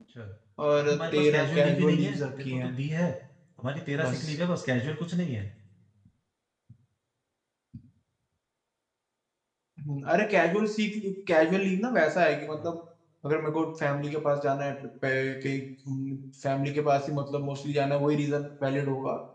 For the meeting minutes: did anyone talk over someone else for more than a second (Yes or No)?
Yes